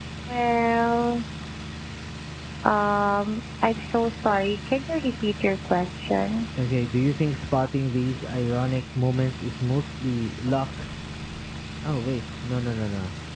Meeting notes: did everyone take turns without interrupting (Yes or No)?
Yes